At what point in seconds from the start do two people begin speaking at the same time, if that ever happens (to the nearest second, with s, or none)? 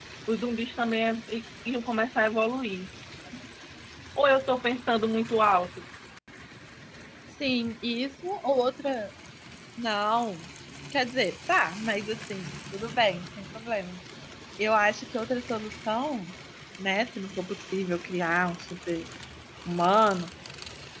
none